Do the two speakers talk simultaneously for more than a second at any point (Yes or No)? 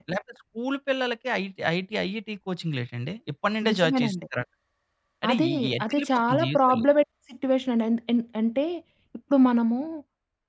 Yes